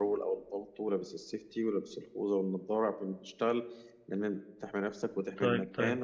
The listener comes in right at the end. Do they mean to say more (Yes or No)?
Yes